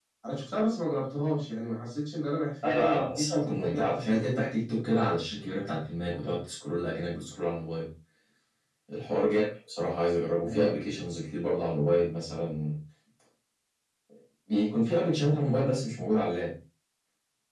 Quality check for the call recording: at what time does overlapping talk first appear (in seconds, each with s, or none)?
2.6 s